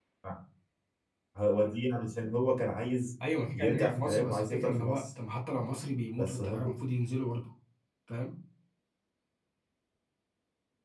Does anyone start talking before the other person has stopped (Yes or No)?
Yes